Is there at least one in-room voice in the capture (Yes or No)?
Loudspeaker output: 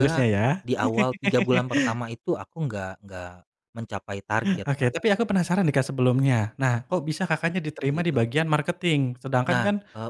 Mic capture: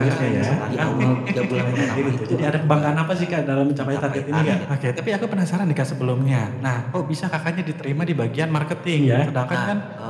Yes